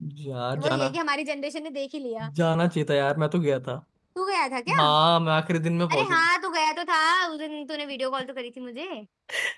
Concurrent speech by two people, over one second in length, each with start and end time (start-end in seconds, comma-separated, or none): none